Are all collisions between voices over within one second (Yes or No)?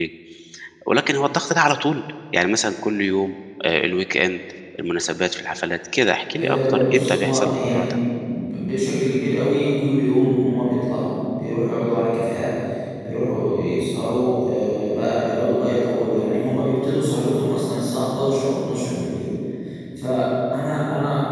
No